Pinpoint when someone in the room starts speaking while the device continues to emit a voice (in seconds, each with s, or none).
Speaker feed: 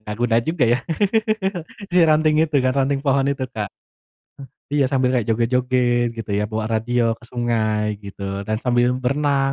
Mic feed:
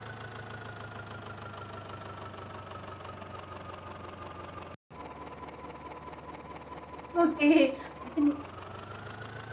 7.1 s